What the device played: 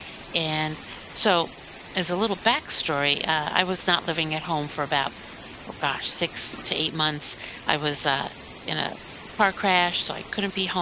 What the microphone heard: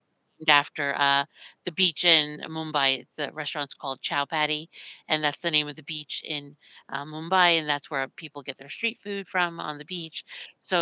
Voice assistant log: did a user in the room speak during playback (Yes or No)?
Yes